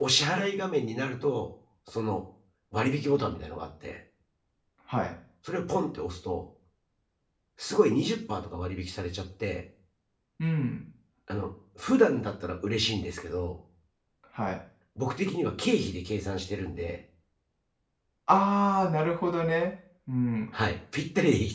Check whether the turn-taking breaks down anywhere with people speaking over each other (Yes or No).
No